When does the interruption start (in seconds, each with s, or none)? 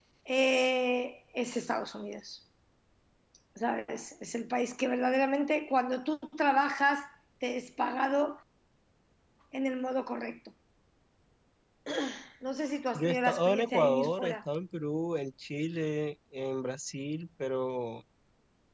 12.9 s